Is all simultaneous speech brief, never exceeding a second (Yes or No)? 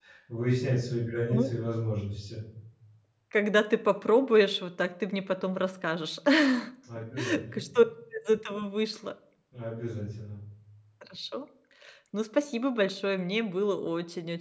Yes